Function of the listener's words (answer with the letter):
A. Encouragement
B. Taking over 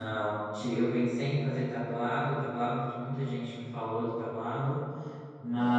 A